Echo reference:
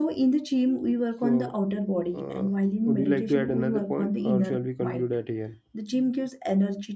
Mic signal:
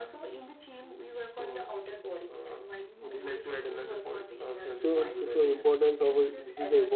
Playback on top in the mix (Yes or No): No